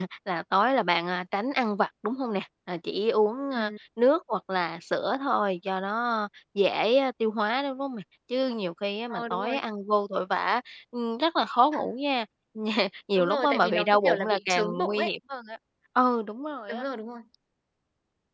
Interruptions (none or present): present